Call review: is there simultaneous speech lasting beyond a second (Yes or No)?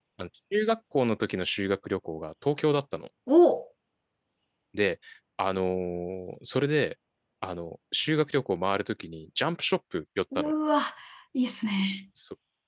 No